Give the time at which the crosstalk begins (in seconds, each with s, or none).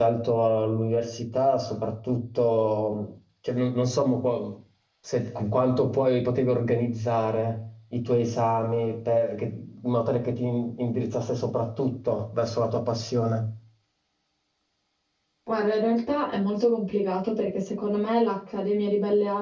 none